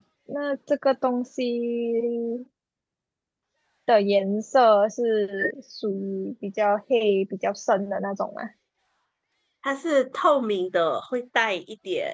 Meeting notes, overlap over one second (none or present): none